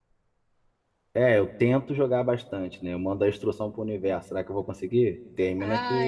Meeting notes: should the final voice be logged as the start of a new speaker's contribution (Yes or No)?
Yes